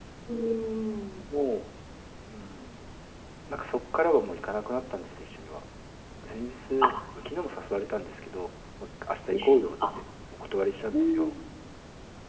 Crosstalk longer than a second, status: none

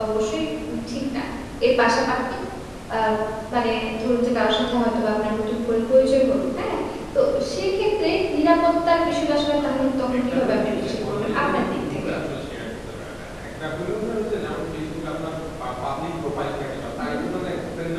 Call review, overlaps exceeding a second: present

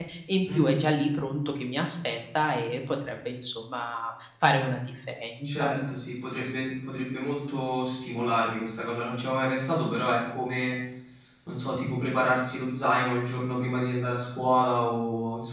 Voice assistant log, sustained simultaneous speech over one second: none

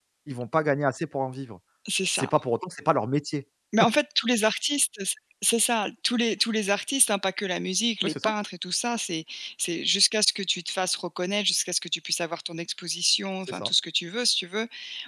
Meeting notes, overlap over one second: none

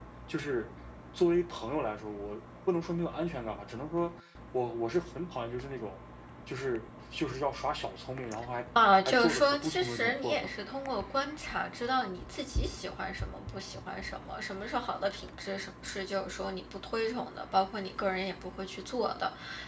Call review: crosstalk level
present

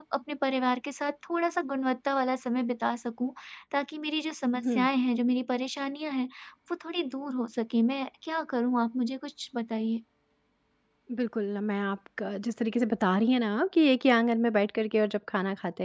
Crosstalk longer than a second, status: none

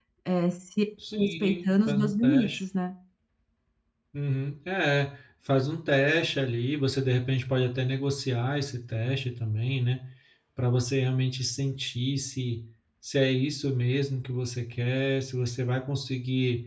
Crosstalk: present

